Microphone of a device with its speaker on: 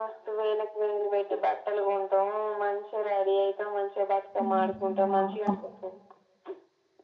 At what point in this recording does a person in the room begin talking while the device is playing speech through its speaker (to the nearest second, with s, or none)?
4 s